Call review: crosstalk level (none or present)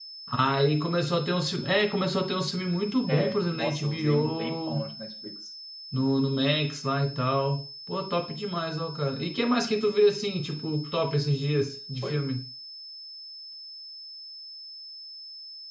present